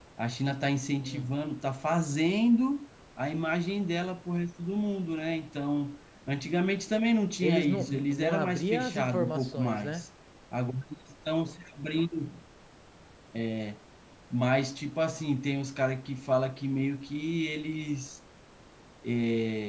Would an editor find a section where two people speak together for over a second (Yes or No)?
Yes